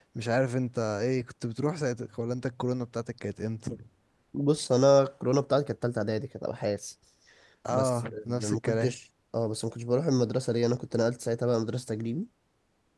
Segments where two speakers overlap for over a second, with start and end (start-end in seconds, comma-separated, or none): 7.7-9.0